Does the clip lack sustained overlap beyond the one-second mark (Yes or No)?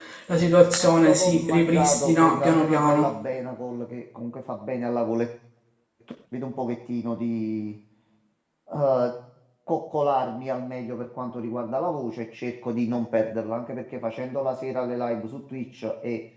No